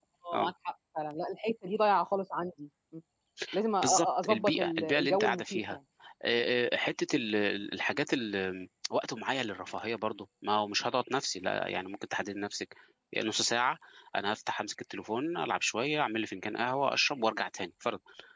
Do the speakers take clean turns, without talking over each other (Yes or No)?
No